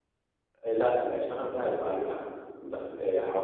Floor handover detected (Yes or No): No